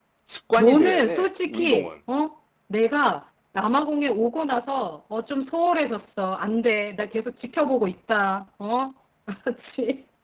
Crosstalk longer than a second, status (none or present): present